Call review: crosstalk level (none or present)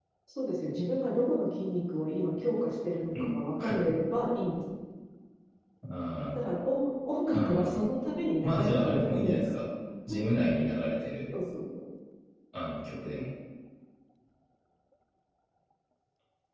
present